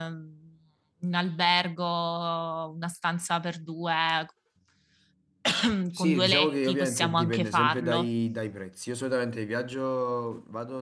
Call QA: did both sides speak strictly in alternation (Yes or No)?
No